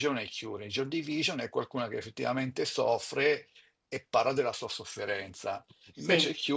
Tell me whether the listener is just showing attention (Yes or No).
Yes